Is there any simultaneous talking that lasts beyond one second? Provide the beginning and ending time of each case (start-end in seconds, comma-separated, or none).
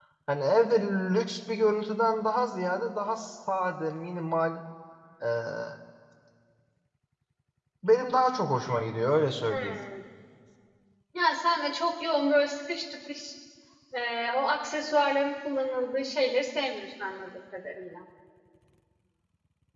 none